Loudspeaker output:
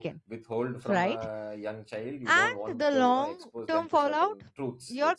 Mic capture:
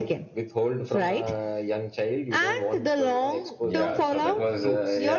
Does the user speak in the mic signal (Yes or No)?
Yes